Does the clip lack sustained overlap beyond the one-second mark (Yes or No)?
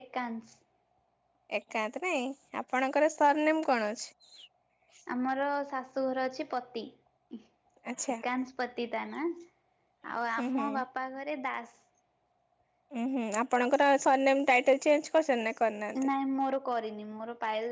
Yes